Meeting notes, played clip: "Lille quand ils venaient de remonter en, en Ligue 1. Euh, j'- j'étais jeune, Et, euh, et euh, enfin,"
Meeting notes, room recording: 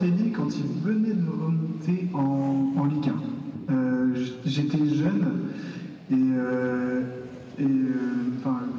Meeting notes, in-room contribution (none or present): none